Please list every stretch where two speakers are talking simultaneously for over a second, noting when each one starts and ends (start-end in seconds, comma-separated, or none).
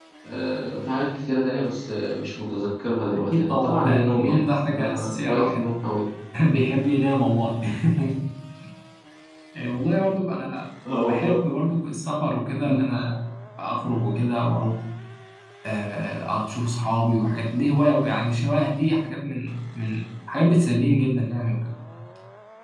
3.1-5.8